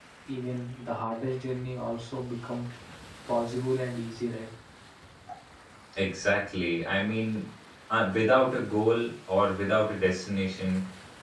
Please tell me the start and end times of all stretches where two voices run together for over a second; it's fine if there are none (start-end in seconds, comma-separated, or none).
none